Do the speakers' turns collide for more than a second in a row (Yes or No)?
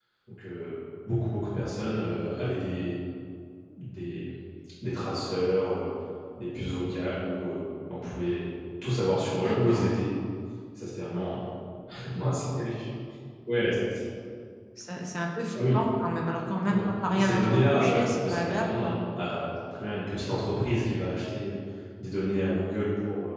Yes